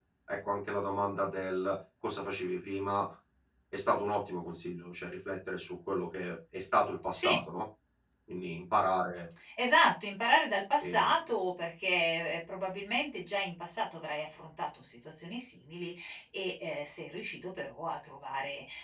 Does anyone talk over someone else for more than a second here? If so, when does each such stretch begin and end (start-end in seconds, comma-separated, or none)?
none